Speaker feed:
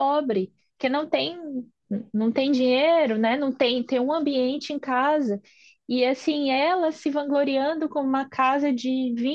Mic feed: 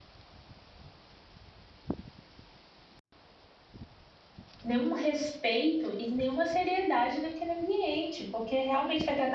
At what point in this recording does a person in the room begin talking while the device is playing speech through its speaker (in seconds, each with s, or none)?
4.6 s